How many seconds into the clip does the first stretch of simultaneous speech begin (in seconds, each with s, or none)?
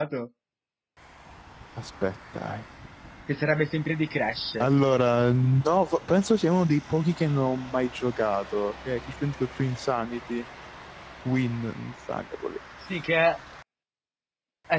none